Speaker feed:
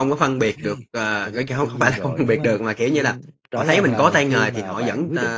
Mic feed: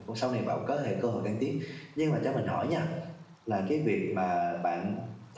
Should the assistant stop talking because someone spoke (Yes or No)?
Yes